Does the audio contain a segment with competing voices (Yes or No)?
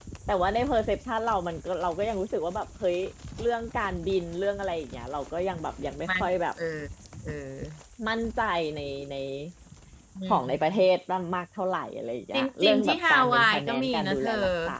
Yes